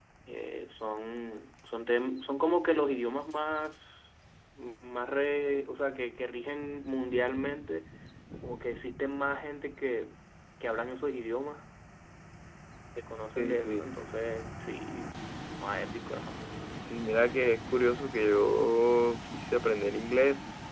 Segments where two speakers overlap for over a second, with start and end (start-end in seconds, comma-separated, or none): none